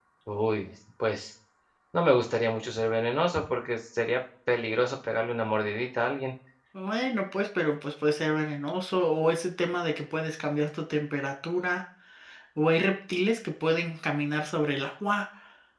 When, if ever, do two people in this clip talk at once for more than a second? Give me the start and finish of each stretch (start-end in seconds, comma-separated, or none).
none